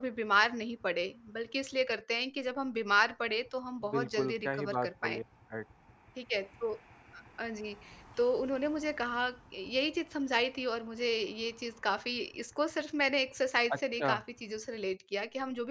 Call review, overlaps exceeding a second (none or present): present